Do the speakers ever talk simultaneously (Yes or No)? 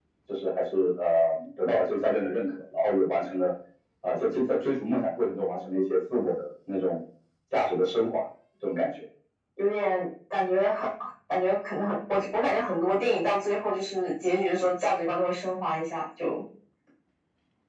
No